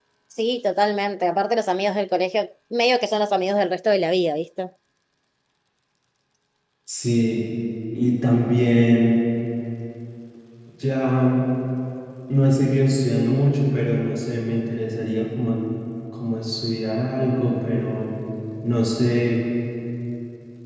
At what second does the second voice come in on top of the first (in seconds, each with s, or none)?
none